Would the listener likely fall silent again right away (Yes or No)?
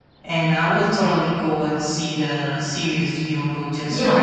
No